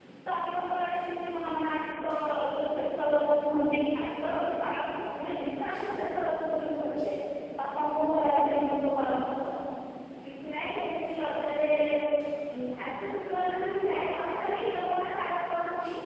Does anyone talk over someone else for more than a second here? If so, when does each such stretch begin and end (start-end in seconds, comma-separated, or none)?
none